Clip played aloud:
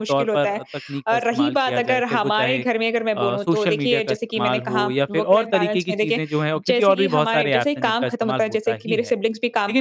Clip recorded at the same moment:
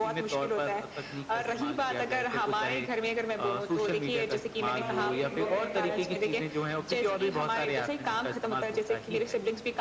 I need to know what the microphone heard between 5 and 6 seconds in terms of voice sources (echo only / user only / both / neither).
both